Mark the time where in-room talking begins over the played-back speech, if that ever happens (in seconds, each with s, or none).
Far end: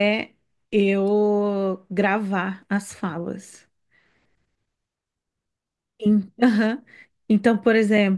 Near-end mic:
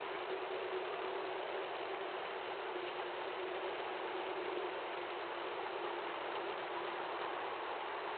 none